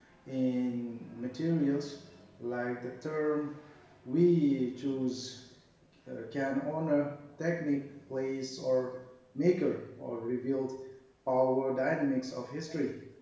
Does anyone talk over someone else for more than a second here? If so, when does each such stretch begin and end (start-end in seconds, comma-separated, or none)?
none